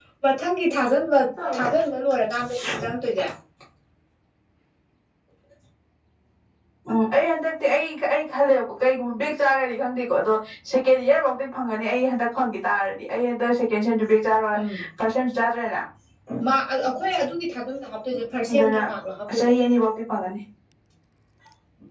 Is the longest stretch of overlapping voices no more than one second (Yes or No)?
Yes